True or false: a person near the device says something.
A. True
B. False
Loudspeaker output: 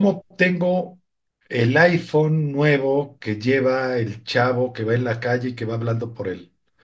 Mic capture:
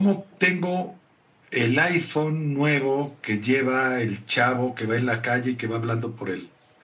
B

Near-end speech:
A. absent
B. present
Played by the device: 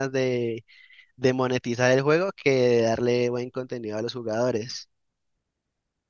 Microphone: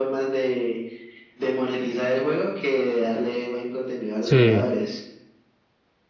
B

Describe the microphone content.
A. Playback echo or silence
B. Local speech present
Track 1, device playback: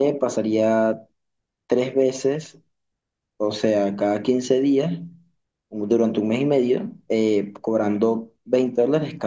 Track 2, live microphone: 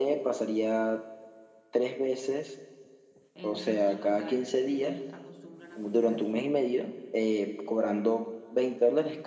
B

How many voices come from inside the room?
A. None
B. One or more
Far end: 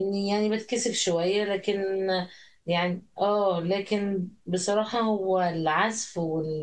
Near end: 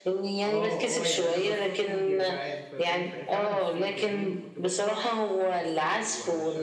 B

